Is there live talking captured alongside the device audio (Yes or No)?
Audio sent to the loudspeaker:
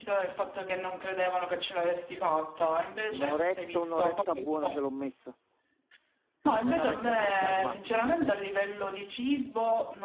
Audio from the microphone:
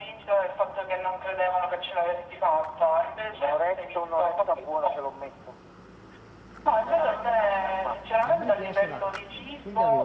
Yes